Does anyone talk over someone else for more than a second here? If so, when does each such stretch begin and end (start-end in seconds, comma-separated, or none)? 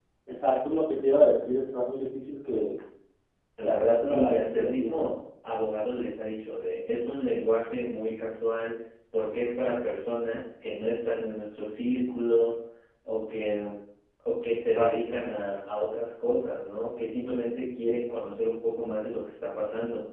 3.6-5.1